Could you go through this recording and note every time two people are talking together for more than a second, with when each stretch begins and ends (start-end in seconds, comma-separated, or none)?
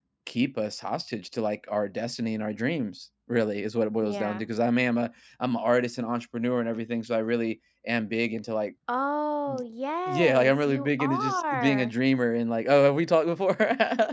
10.1-11.9